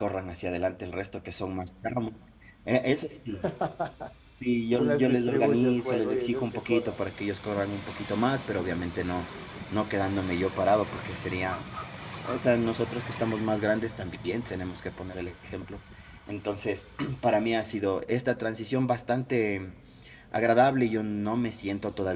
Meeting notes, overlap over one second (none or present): present